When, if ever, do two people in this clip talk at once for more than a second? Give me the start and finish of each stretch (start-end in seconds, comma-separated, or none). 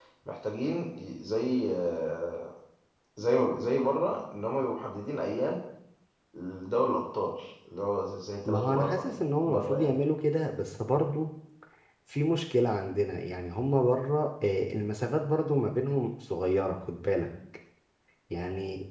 8.4-10.0